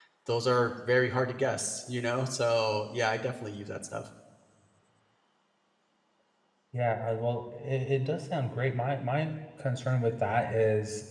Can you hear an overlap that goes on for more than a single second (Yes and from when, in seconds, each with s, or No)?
No